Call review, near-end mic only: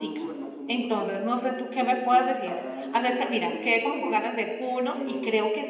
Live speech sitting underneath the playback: No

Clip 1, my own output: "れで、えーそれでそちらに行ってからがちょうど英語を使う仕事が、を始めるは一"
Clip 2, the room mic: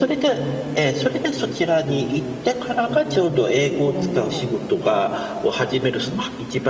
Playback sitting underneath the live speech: No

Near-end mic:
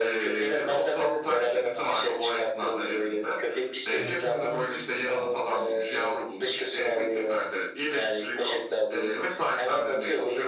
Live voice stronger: No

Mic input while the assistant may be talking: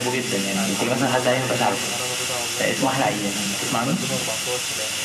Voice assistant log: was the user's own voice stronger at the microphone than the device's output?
No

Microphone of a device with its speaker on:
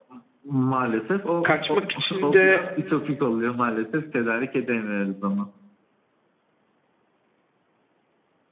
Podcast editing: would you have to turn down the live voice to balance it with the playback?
Yes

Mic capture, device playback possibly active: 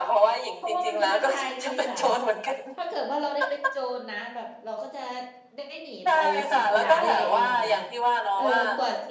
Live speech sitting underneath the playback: Yes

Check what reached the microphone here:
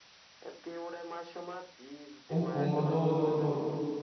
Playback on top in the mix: No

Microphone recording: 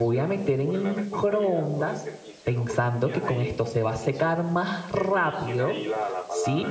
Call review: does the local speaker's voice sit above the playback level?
Yes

